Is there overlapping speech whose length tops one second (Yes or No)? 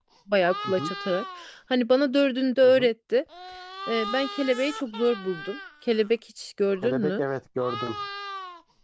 No